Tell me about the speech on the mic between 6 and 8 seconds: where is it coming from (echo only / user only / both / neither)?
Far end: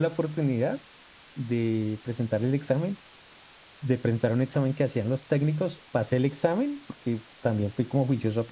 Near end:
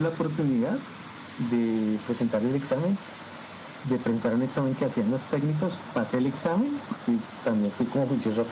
echo only